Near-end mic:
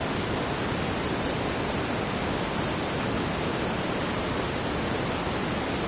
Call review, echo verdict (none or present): none